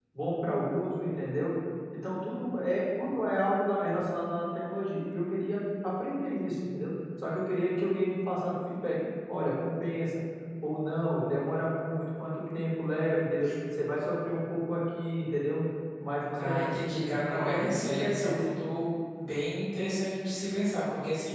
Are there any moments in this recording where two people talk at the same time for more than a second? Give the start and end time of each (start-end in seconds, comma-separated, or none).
16.4-18.4